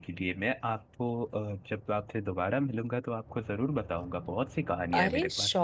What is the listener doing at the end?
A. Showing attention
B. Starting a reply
B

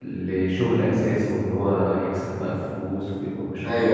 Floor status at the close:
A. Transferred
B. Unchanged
A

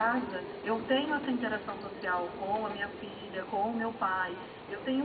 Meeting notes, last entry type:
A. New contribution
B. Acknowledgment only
B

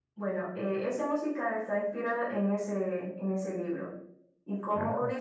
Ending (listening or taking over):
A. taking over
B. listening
B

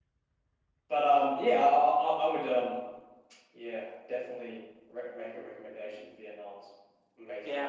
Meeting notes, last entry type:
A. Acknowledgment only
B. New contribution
B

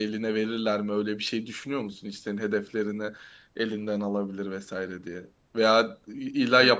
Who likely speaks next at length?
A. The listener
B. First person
B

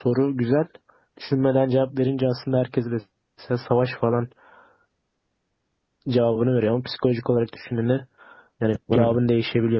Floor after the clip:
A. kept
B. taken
A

